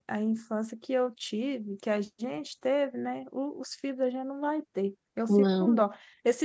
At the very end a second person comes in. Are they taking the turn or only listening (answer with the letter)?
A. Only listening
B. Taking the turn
A